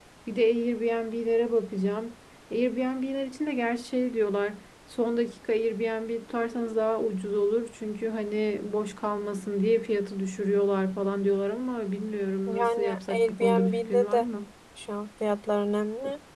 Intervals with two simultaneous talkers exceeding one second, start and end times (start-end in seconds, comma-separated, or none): 12.5-14.2